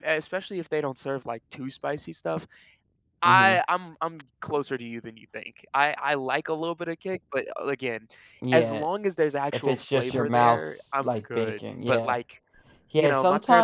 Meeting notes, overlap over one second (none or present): present